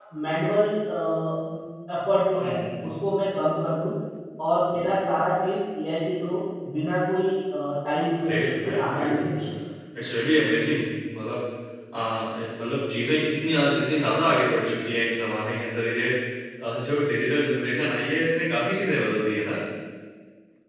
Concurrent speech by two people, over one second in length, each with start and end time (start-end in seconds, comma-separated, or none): 8.3-9.5